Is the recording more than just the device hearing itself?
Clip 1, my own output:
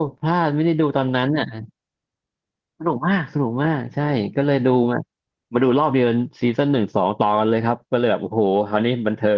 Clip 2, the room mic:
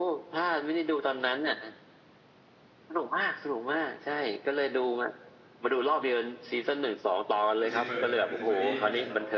Yes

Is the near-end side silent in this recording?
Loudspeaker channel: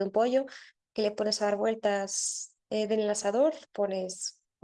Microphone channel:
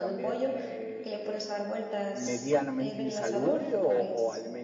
No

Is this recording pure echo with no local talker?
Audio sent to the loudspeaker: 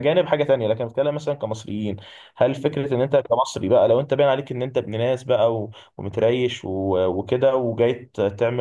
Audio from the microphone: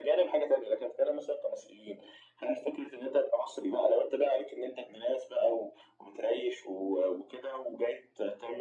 Yes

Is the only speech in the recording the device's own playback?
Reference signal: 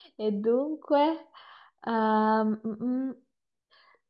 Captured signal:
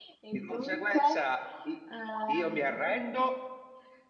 No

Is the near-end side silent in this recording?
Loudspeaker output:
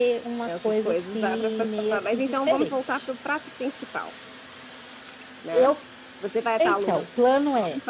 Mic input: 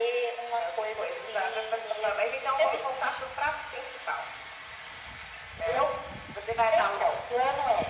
Yes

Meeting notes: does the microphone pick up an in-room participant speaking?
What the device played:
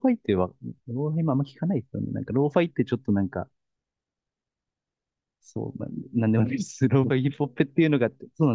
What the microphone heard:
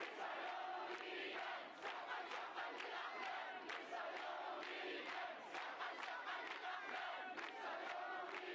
No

